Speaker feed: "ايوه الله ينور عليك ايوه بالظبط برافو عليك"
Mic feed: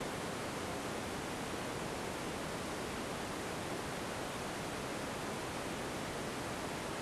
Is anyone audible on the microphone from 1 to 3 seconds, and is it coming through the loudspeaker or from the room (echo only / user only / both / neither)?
neither